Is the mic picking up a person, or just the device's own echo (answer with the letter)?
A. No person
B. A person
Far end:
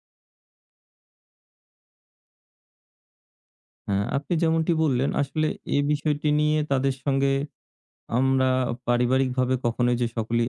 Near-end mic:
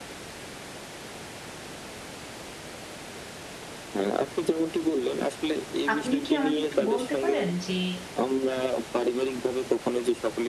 B